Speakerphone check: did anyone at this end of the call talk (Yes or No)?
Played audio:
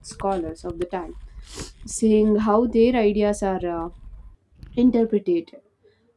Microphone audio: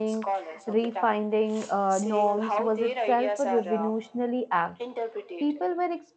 Yes